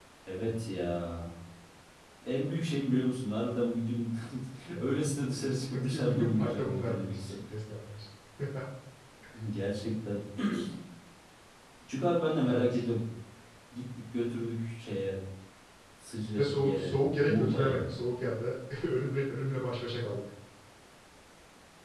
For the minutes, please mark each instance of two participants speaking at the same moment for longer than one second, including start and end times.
5.8-7.4, 16.4-17.9

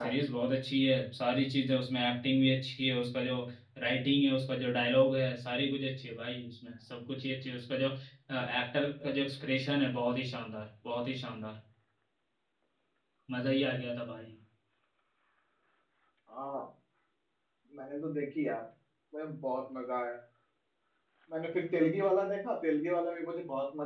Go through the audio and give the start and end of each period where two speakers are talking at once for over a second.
none

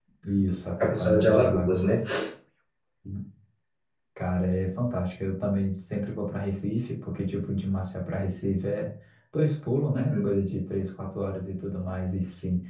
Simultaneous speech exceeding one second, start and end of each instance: 0.8-2.0

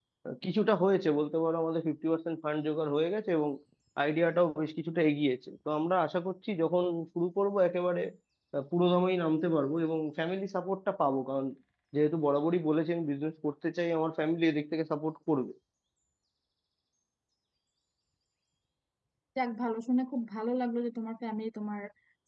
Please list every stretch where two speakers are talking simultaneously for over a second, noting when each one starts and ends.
none

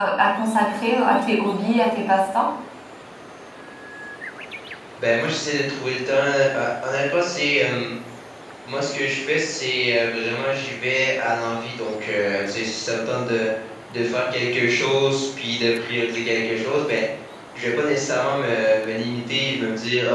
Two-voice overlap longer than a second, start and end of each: none

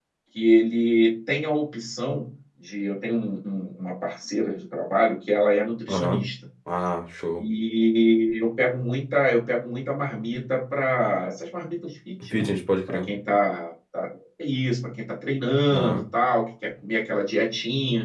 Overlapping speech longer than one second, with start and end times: none

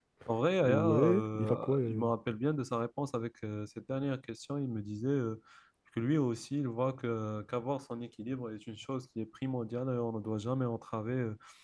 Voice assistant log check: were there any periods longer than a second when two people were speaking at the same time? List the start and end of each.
0.6-2.1

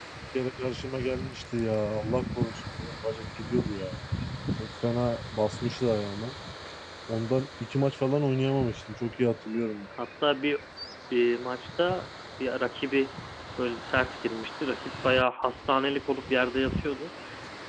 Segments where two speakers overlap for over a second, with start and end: none

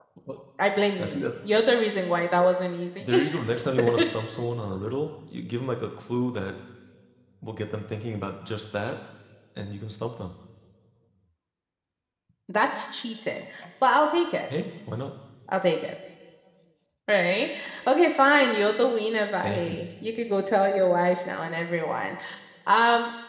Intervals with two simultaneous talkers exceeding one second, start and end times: none

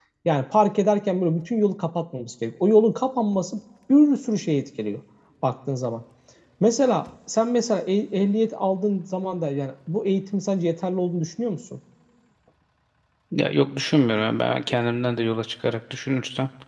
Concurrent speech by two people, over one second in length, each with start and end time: none

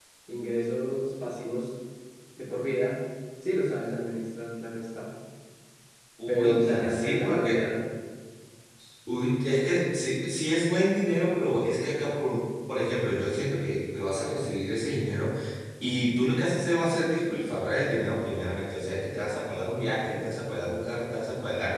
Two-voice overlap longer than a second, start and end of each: 6.3-7.5

